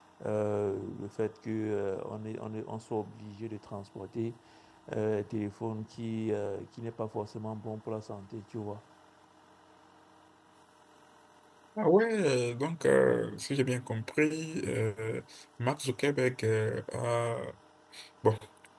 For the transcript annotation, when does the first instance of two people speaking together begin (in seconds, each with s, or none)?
none